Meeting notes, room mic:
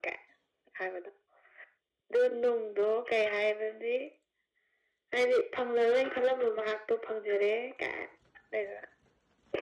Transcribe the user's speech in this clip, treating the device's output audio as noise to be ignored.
none

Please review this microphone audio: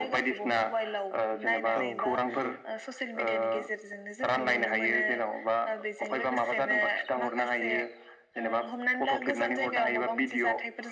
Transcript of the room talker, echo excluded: औ नंगौ

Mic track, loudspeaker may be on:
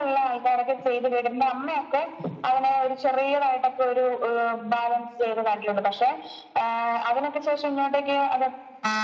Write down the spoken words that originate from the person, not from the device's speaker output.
none

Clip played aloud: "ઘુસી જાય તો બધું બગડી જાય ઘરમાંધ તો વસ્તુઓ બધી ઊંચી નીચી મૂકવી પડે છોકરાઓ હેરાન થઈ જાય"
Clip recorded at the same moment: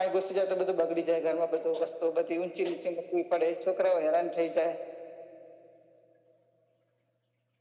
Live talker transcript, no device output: none

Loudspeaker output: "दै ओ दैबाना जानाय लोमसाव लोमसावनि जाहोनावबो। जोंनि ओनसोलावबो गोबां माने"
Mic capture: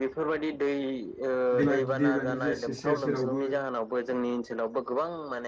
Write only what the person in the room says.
दैमा गिदि दैमानि जा सेर सेरावबो

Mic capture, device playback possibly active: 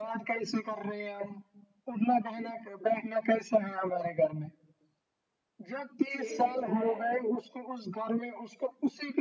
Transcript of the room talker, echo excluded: چھیڑ دیا ہے

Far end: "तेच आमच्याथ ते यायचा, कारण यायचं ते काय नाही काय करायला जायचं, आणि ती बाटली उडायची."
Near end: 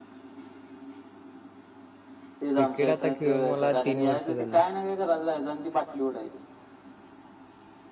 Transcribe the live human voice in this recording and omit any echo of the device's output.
क्रिकेट आता खेळून मला तीन वर्ष झाले.

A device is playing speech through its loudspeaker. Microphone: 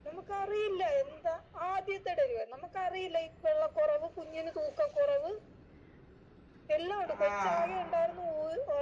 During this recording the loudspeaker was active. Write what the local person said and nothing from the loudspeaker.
ആഹ്

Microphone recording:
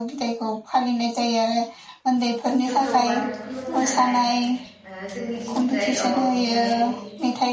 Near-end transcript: जोंथ' बाथौ खुलुमो नालाय ओ जोंनि जाय औ बेहाय

